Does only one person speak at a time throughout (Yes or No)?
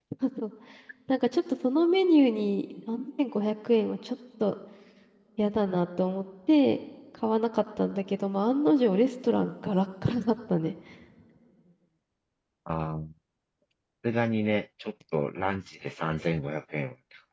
Yes